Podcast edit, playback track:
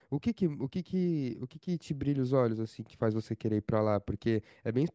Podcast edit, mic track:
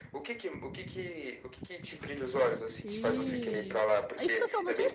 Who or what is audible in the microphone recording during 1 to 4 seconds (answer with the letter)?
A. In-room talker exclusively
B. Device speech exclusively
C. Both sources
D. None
C